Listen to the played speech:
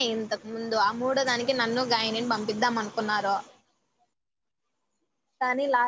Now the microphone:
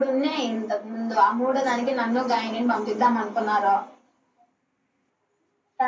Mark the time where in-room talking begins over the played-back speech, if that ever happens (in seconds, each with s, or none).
none